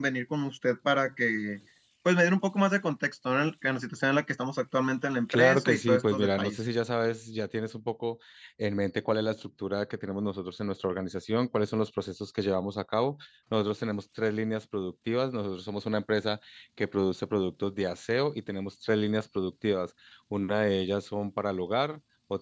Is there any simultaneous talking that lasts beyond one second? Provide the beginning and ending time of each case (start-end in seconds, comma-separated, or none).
5.3-6.6